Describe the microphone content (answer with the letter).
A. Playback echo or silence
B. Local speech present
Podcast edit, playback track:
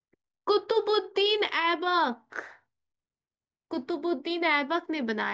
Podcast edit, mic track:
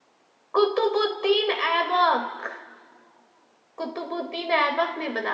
A